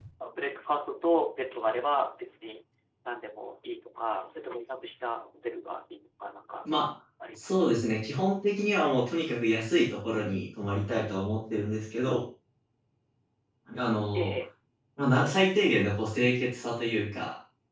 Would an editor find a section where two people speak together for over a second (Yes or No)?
No